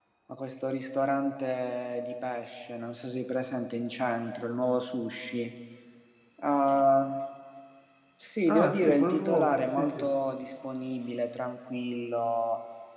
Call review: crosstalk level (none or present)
present